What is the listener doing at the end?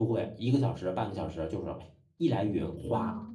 listening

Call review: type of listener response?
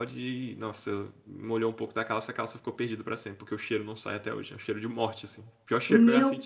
taking over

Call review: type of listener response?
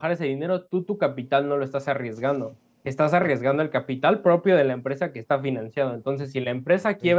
listening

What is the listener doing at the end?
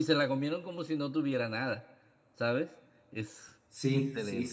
taking over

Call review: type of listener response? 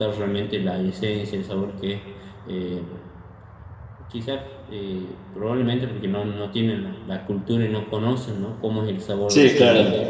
listening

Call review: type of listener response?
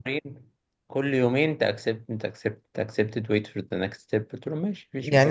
taking over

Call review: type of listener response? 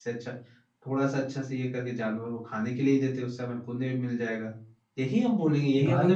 listening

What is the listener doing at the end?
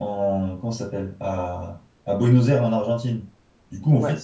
listening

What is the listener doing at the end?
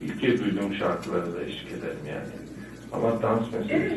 taking over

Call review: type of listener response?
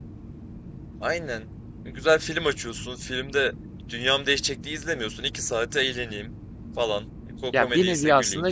taking over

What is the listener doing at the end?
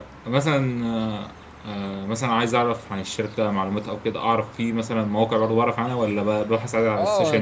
taking over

